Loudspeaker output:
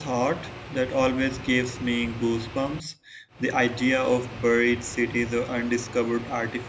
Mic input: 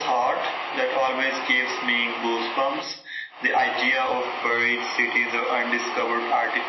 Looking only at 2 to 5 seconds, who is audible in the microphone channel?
echo only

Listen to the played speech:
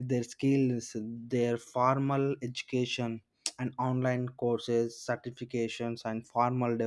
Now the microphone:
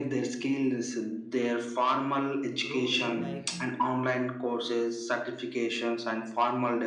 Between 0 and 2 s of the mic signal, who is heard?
echo only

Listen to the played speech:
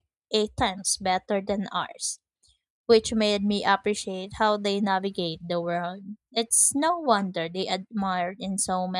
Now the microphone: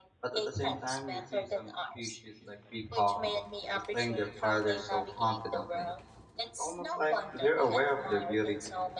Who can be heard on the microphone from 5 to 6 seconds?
both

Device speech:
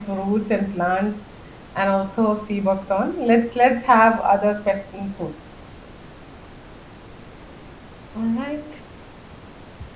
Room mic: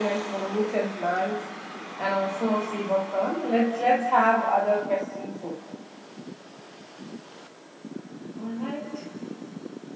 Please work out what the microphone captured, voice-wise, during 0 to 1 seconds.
echo only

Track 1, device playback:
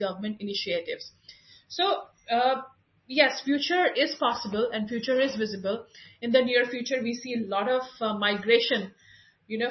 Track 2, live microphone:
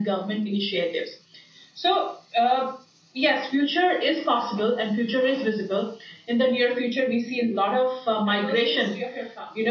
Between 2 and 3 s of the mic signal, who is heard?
echo only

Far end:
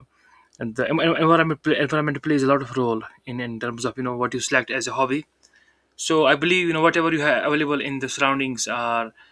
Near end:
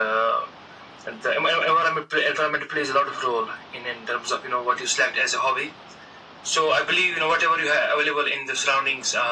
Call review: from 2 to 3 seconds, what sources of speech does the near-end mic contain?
echo only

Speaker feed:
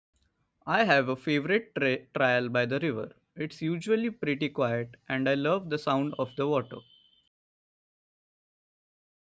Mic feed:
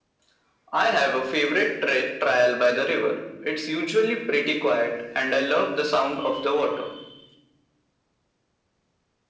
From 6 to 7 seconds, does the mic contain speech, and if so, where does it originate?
echo only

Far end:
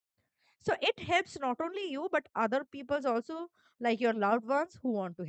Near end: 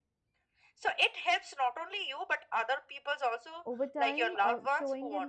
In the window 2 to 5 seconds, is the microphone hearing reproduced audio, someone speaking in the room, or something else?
both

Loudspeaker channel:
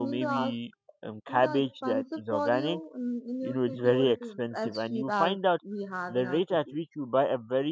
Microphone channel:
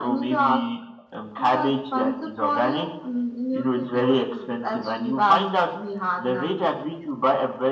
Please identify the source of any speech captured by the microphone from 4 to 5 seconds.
echo only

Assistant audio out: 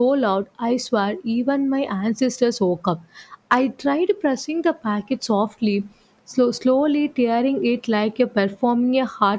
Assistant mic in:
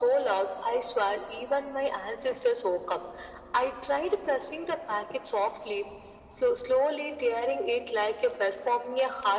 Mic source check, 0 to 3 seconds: echo only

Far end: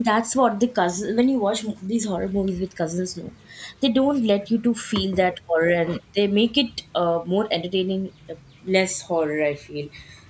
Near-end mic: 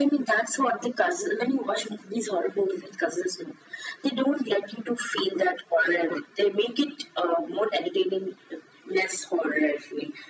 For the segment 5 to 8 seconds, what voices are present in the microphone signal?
echo only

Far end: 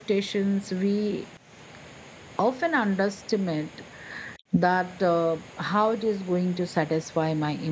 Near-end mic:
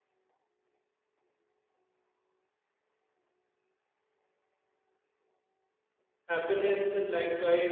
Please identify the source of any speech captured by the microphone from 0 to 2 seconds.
neither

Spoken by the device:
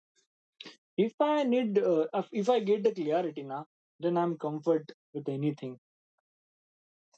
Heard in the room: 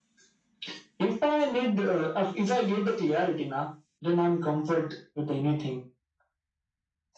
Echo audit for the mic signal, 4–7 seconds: echo only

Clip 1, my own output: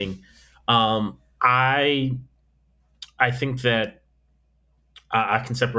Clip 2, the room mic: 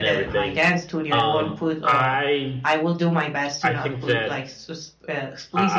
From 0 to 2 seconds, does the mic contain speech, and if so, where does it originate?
both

